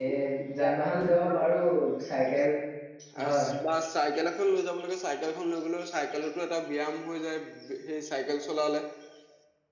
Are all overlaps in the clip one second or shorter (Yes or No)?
Yes